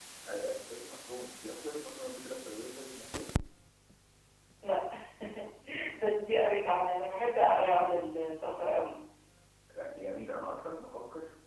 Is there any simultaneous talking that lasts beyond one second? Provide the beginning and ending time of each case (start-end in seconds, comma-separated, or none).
none